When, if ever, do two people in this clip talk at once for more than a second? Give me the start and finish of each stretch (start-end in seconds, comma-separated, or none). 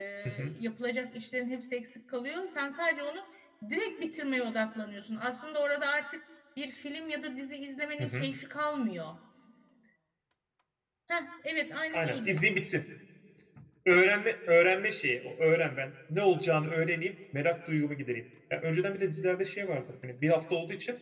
none